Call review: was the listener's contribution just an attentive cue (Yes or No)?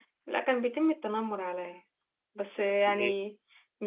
Yes